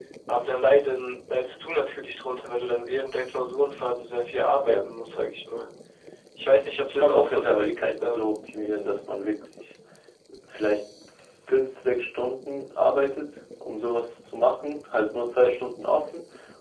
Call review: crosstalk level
present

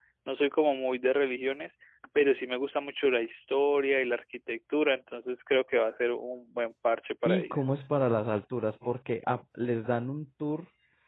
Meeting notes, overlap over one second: none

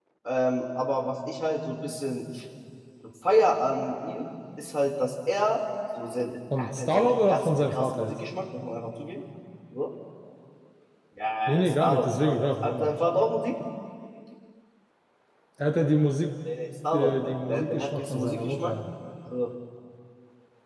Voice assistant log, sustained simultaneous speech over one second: present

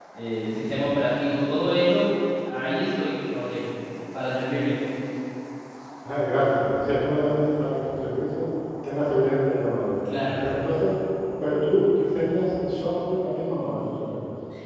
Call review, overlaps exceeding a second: none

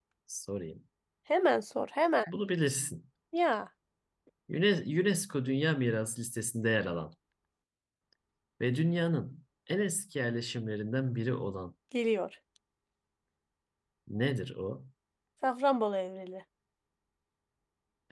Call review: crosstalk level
none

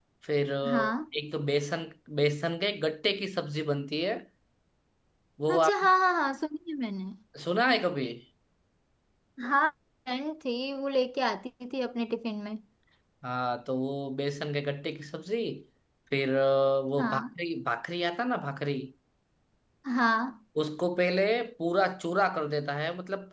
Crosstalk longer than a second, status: none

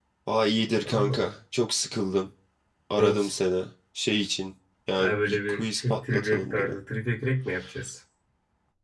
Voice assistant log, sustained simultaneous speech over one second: present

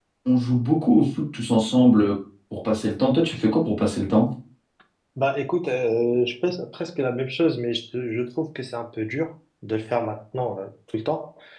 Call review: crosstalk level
none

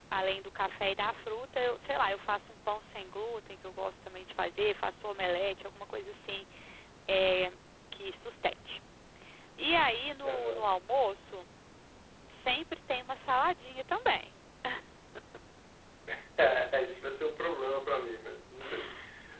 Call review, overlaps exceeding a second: none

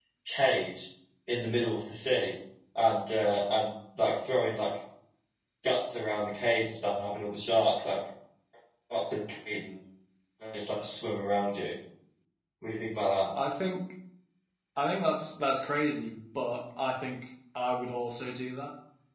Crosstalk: none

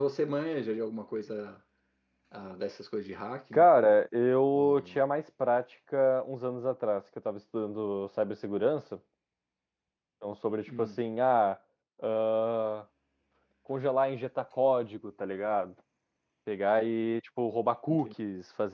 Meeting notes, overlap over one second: none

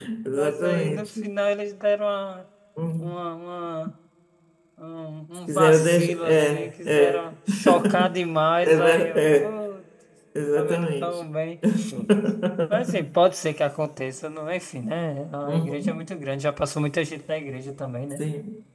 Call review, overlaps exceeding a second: present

